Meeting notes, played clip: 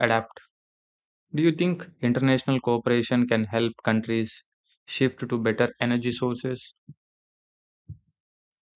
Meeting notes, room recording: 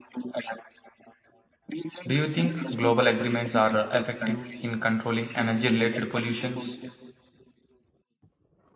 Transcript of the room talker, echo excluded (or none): Do you think global agreements are uh, effective in controlling energy related pollutions?